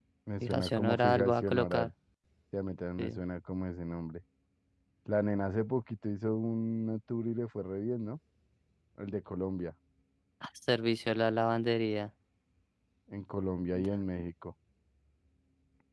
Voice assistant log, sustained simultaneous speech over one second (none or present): present